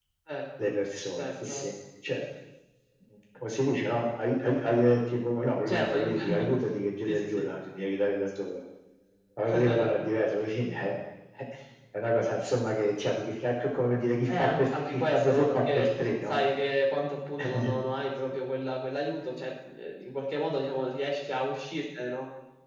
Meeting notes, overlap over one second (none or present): present